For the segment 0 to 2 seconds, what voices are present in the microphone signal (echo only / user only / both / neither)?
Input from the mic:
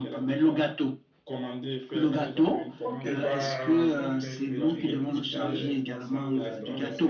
echo only